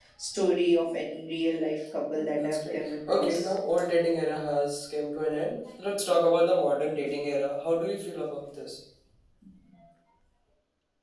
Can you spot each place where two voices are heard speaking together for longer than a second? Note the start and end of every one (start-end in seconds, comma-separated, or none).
2.1-3.4